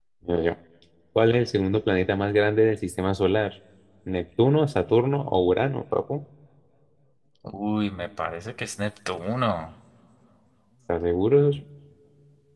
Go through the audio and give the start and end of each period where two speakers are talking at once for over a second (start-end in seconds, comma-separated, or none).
none